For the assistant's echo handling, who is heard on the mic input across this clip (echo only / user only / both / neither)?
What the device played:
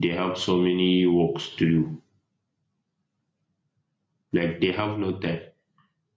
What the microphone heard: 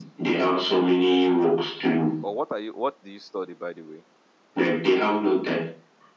both